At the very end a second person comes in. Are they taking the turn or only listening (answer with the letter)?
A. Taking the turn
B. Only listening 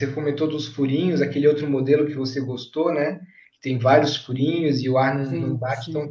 B